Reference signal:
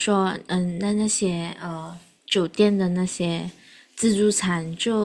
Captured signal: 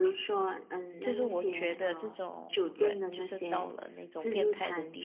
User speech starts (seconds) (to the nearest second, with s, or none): 1 s